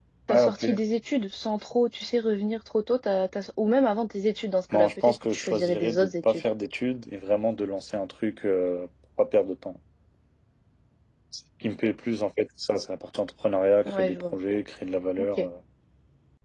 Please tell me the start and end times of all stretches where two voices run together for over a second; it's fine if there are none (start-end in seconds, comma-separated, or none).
4.7-6.4